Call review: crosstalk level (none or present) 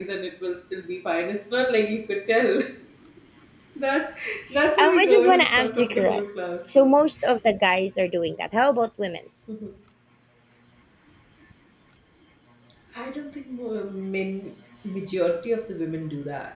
present